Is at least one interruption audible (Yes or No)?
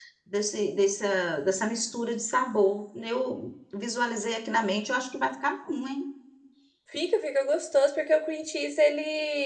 No